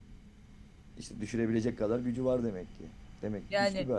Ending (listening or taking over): taking over